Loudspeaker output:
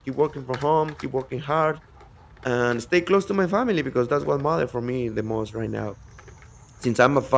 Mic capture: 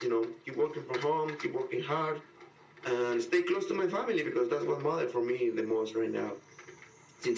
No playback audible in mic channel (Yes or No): No